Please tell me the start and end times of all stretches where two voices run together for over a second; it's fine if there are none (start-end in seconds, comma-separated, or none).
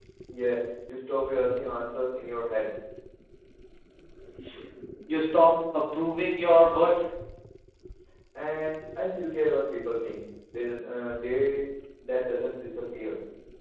none